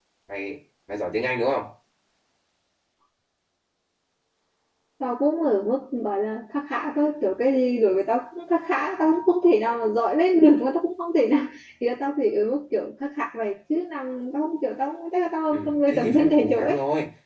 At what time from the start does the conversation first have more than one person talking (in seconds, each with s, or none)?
15.5 s